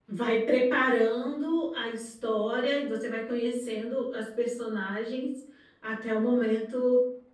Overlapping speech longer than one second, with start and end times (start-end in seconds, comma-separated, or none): none